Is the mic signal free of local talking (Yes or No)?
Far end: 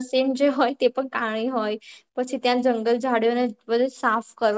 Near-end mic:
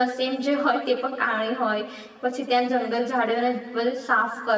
Yes